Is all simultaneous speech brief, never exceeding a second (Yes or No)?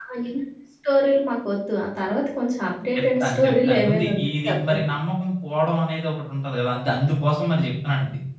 No